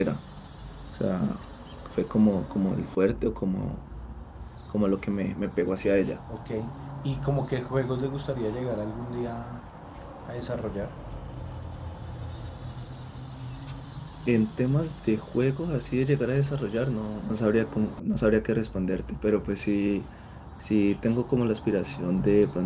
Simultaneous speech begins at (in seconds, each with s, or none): none